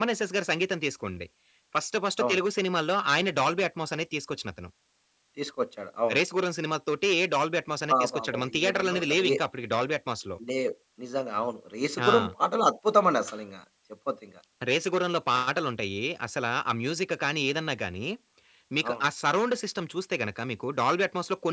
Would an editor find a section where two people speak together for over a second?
Yes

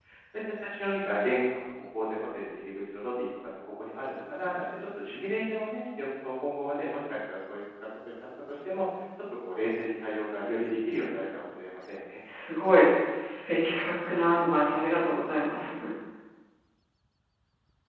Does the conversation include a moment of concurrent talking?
No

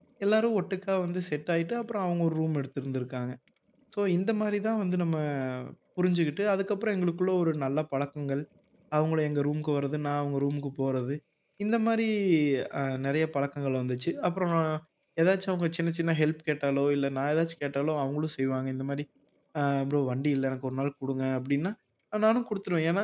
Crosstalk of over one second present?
No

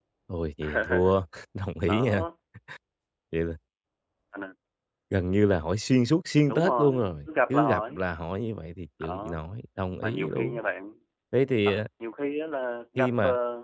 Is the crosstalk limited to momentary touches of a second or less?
No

